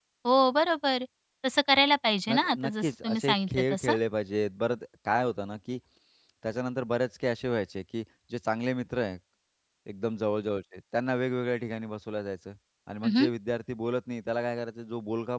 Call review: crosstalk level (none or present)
present